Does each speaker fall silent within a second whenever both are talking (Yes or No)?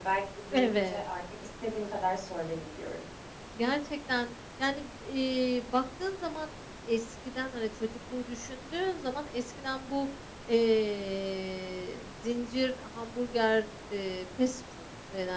Yes